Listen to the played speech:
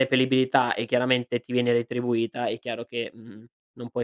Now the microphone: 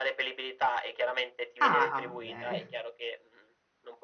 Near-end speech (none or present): present